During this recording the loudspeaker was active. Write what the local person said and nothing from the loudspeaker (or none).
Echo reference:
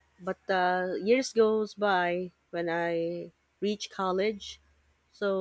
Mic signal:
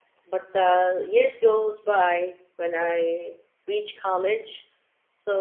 none